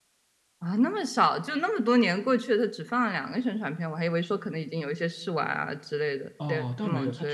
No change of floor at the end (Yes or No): No